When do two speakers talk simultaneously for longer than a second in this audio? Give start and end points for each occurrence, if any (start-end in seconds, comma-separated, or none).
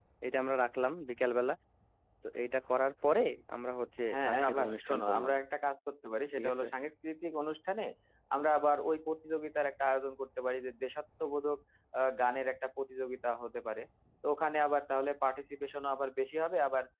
4.1-5.3